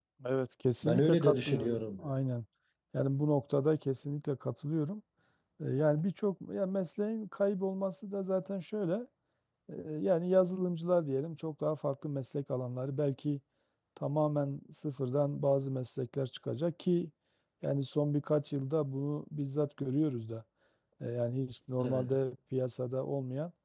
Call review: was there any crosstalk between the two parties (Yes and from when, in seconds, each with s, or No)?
Yes, from 0.8 s